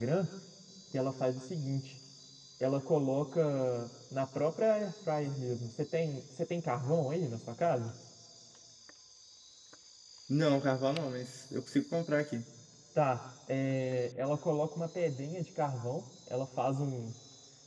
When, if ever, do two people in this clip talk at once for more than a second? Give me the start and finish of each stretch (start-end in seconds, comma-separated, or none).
none